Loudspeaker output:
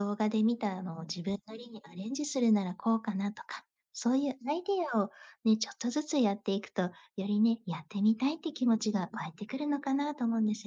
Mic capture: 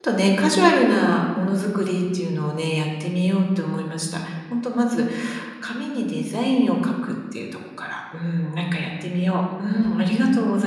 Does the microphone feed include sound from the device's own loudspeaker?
No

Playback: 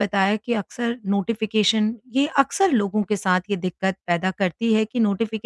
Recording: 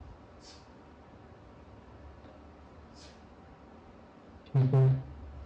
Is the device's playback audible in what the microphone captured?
No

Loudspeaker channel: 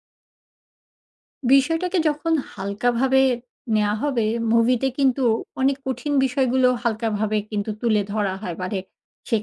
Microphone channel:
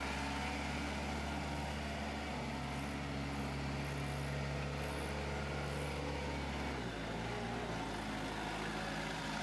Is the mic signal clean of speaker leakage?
Yes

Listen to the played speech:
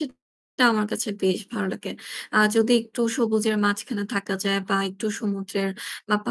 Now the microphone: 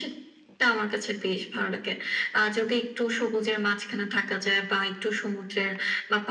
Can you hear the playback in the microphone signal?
Yes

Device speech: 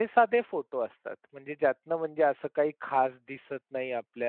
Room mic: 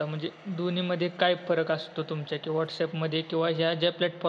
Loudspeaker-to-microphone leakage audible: No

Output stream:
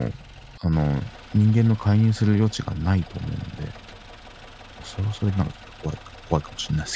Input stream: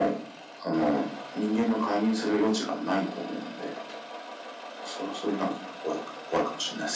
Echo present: Yes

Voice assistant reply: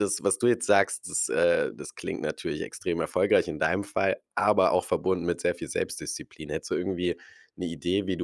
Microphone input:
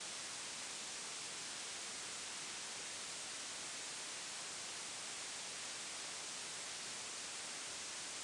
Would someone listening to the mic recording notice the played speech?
No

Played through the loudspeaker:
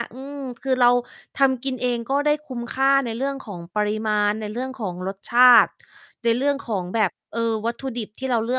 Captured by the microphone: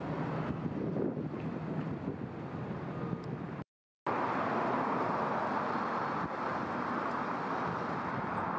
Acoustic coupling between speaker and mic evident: No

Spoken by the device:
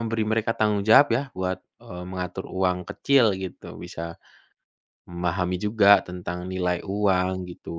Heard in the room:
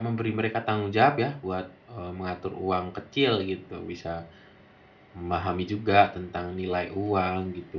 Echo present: Yes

